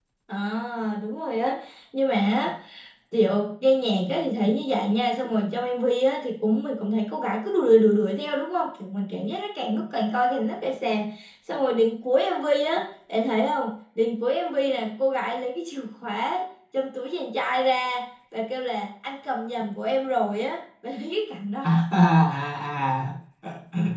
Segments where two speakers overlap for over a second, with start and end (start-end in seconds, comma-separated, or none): none